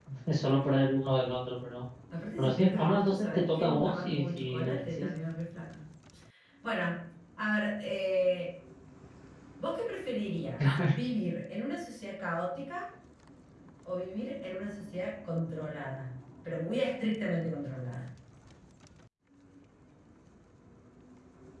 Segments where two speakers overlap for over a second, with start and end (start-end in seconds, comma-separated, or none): 2.4-5.1